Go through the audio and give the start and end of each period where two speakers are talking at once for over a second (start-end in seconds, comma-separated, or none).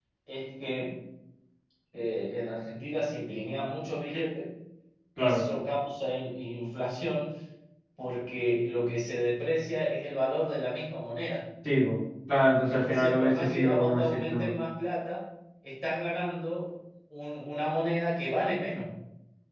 12.7-14.5